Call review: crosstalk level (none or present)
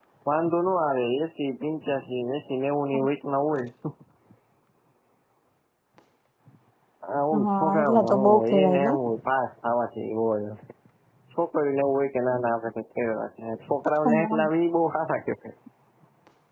present